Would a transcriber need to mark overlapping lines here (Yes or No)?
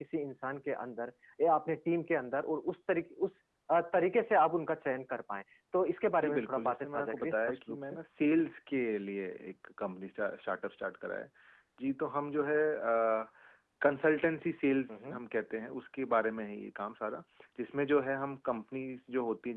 Yes